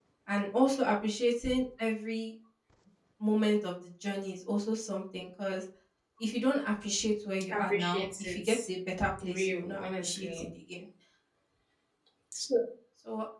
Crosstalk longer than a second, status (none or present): present